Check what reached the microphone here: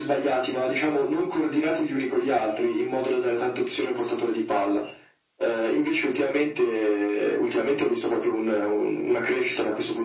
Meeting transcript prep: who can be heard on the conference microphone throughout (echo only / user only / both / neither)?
echo only